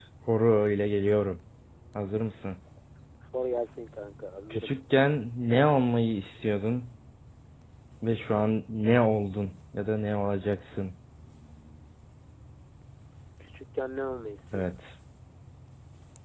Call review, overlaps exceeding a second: none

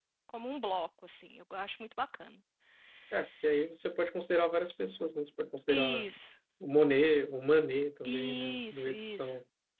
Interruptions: present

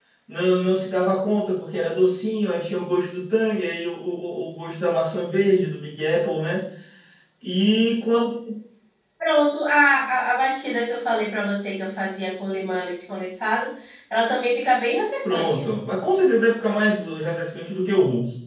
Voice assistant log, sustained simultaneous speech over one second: none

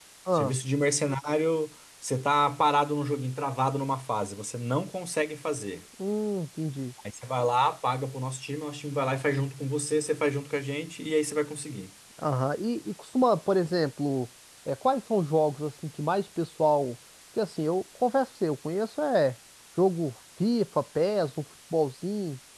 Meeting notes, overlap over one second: none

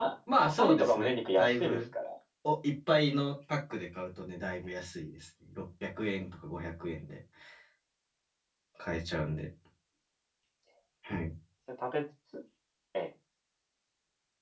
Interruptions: present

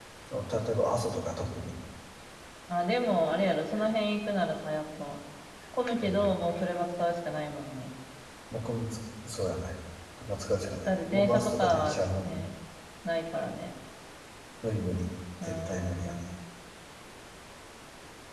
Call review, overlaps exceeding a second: present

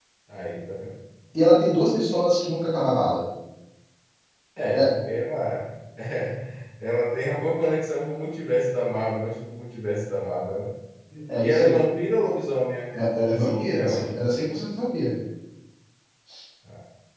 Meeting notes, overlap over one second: present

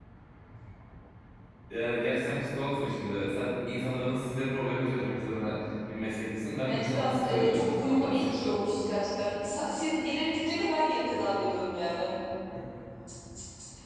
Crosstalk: present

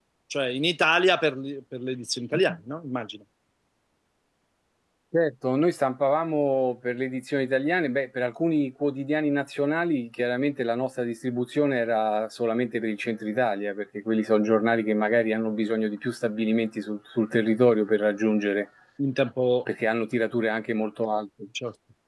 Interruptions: none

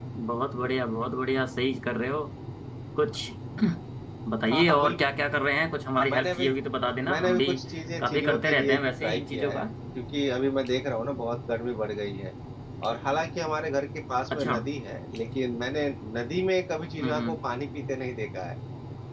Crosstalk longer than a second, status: present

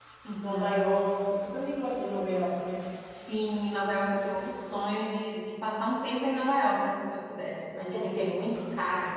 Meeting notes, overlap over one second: none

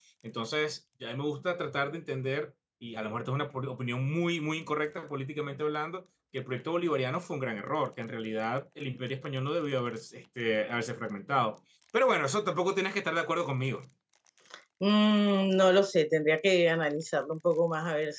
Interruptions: none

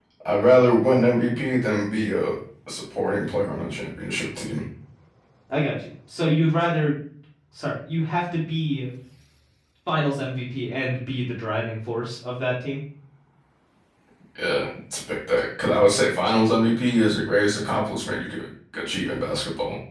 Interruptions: none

